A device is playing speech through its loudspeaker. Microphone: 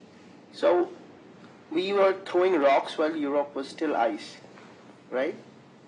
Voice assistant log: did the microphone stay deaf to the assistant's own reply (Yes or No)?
No